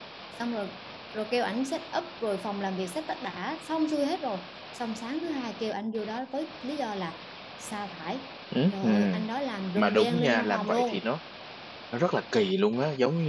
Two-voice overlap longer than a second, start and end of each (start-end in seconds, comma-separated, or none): 9.8-11.0